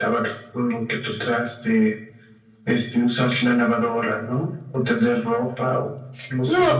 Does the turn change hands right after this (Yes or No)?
Yes